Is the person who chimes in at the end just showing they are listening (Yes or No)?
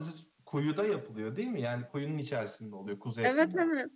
No